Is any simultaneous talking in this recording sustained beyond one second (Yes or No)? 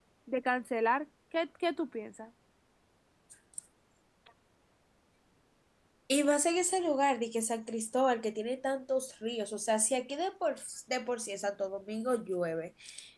No